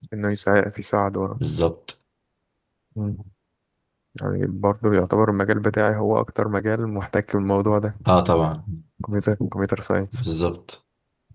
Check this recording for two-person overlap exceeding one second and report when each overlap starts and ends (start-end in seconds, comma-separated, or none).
none